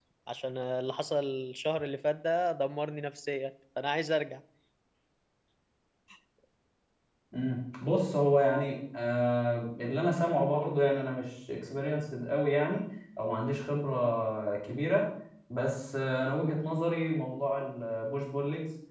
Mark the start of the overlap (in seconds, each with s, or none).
none